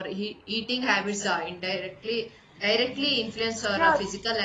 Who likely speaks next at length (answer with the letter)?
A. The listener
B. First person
A